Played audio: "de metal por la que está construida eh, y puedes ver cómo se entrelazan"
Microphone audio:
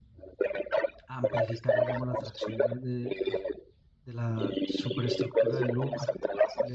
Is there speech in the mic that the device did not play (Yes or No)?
Yes